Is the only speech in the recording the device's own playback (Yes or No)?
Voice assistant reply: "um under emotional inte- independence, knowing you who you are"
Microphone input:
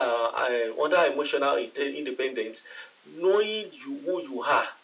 Yes